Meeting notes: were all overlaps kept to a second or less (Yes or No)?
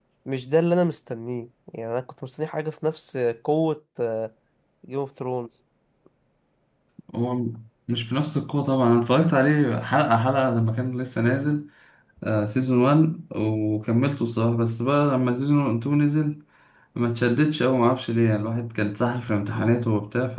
Yes